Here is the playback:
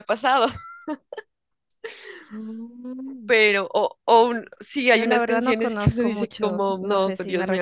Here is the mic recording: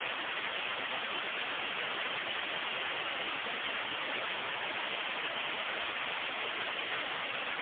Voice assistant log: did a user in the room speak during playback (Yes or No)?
No